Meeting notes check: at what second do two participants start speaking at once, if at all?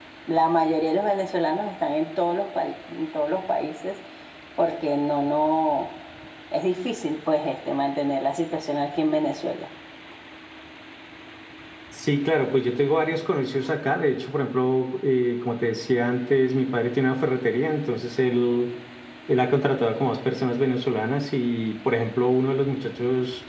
none

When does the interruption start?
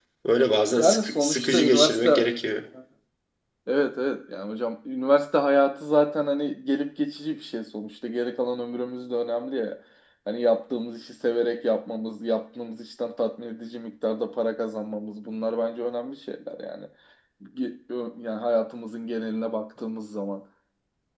0.8 s

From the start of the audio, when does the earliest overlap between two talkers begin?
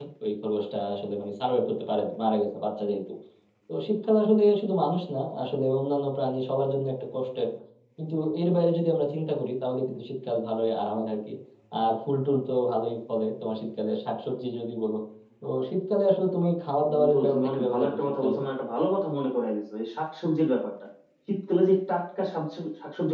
16.9 s

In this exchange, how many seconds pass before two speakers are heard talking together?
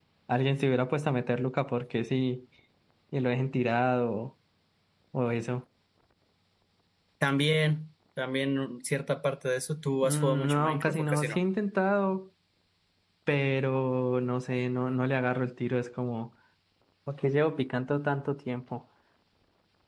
10.0 s

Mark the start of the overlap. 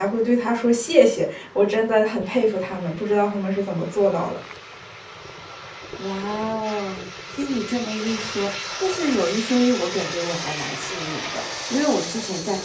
none

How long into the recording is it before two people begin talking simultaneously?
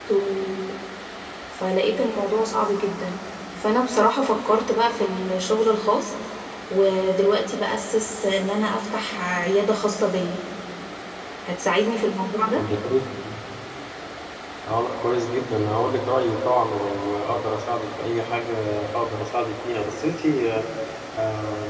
none

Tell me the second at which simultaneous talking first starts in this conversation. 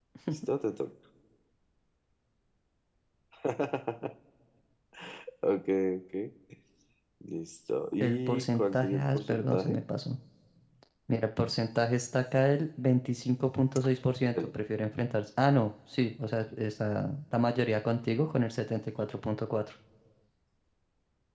8.0 s

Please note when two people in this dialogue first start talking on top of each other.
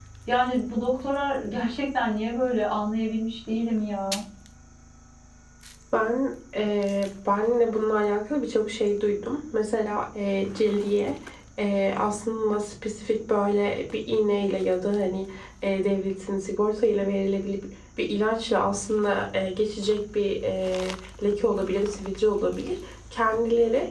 none

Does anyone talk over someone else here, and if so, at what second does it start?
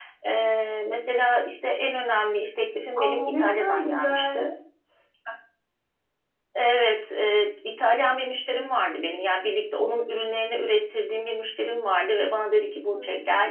3.0 s

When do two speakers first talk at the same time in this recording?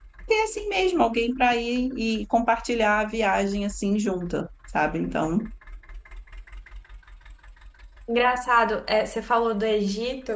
none

